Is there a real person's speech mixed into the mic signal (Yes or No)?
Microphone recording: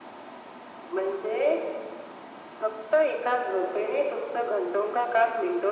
No